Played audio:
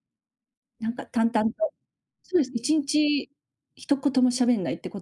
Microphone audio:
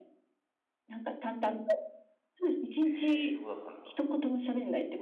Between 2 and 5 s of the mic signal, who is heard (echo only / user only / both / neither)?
both